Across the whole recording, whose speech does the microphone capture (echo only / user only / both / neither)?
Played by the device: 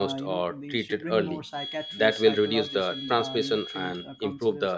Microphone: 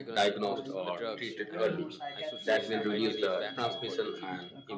both